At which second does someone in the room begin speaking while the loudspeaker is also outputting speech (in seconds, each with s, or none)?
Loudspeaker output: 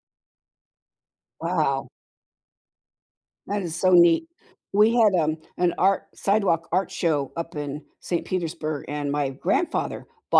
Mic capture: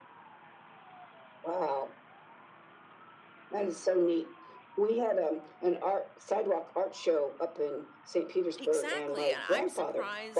8.6 s